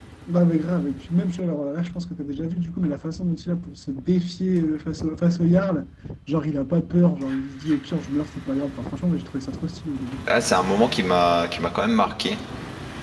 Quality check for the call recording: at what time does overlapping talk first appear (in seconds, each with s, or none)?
none